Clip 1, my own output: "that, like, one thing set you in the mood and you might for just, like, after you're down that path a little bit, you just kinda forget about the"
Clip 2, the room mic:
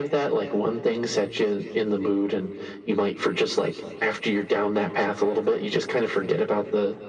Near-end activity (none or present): none